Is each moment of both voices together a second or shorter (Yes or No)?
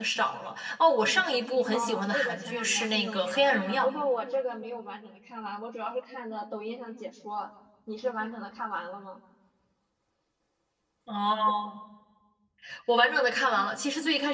No